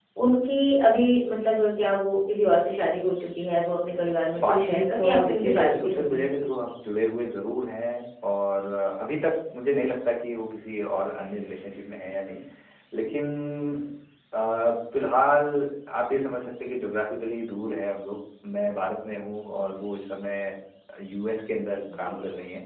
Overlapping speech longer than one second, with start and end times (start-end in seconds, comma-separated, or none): 4.4-6.3